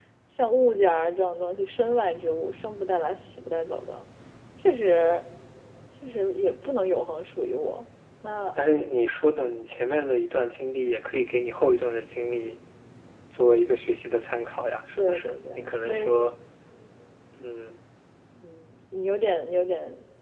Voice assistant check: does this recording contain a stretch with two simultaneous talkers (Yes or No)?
Yes